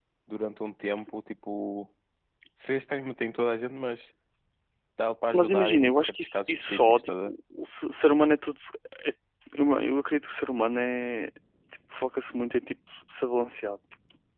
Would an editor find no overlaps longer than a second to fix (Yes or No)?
No